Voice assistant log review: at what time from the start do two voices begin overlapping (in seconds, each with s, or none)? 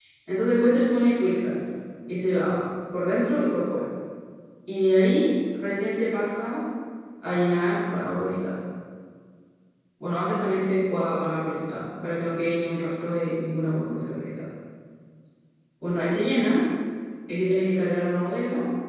none